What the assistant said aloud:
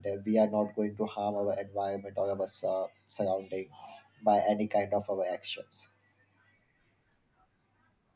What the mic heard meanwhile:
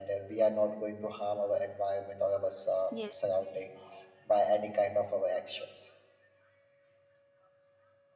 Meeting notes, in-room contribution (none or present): present